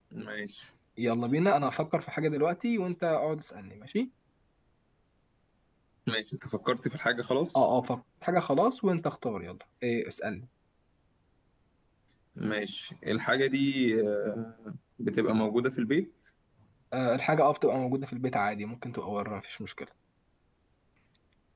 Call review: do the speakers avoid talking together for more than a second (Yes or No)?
Yes